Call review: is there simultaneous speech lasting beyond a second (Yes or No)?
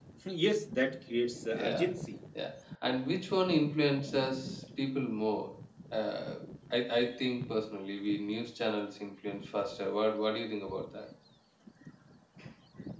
No